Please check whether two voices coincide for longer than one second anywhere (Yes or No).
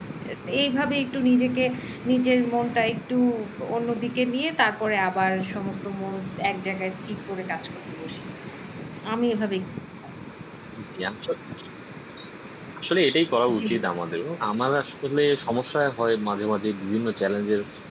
No